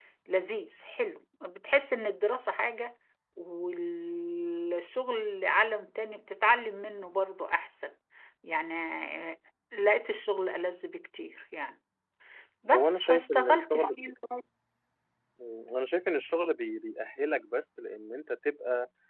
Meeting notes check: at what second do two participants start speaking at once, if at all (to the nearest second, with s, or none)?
13 s